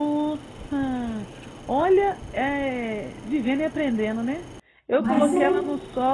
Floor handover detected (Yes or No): No